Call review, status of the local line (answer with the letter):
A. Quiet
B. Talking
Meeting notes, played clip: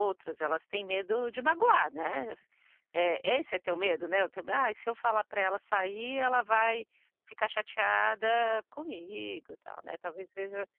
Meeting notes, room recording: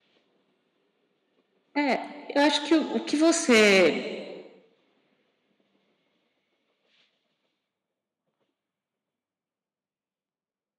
B